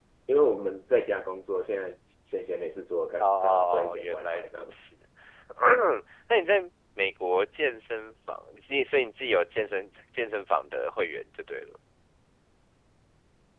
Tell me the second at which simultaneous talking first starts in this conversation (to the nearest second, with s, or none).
3 s